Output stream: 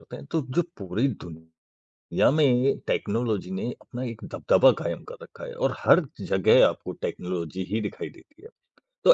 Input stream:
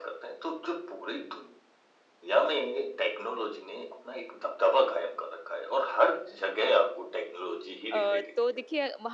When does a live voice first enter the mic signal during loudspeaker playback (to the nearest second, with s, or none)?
8 s